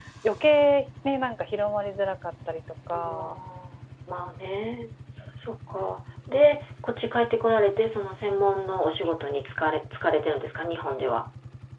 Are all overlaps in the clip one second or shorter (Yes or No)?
Yes